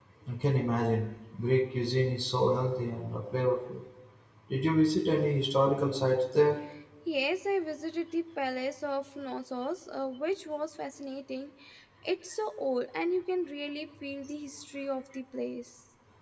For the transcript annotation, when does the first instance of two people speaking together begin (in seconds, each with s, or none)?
none